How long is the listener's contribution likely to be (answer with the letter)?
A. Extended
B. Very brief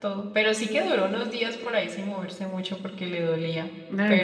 A